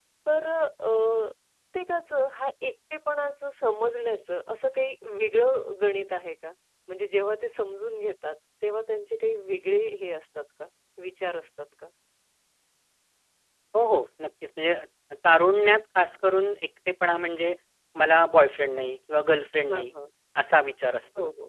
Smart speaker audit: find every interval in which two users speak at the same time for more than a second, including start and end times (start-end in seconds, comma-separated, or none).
none